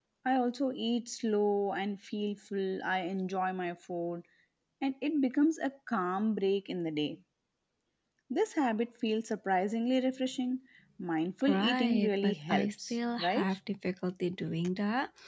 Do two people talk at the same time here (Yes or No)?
Yes